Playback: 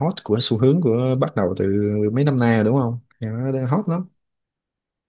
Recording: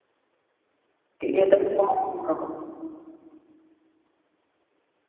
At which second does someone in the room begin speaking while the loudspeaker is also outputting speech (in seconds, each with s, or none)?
1.2 s